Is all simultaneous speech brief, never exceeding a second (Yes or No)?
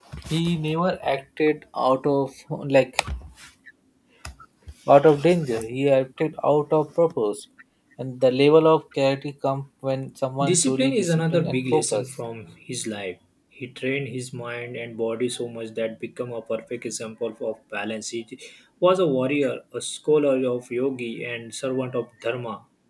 No